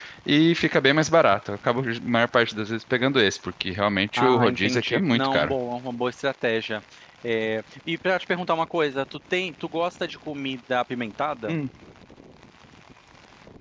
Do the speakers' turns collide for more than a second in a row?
Yes, from 4.2 s

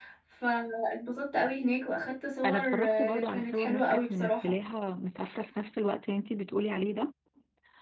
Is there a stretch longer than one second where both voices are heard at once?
Yes, from 2.4 s

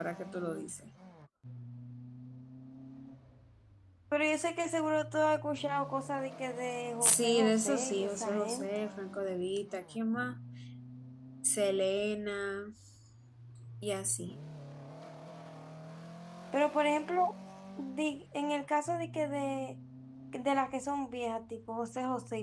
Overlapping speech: Yes, from 7.0 s

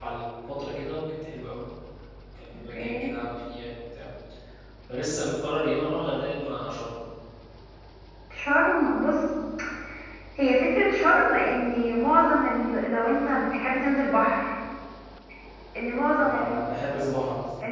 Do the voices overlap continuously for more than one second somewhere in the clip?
No

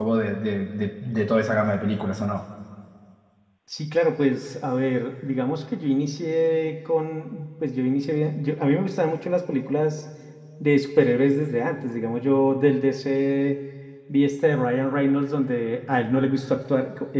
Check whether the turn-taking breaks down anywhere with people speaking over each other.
No

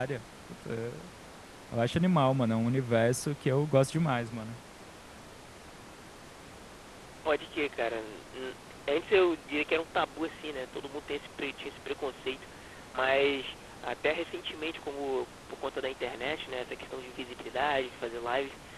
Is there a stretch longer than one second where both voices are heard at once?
No

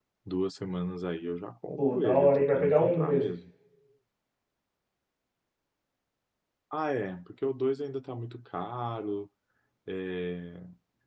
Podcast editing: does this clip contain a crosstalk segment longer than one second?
Yes, from 1.8 s

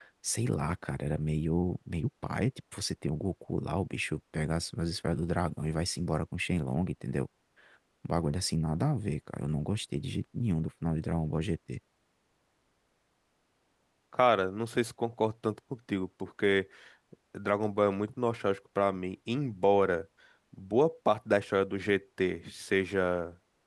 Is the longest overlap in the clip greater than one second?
No

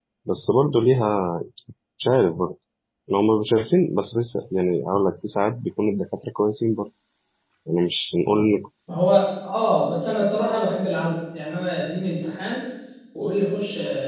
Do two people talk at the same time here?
No

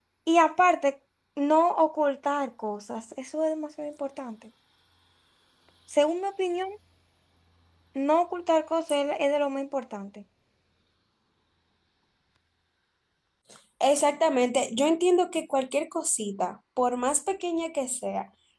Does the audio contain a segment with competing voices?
No

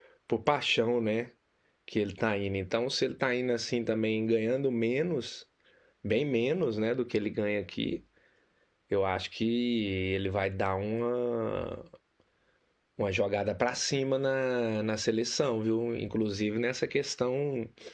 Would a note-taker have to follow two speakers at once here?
No

